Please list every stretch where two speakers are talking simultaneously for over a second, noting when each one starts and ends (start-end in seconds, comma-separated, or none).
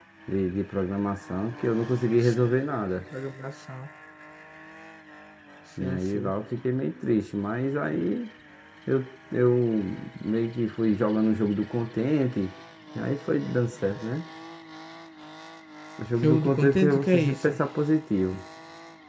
16.2-17.5